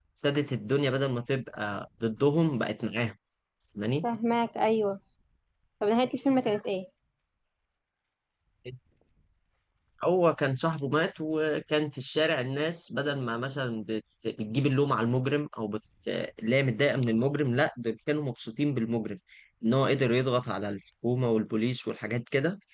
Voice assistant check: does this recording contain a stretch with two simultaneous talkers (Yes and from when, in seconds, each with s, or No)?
No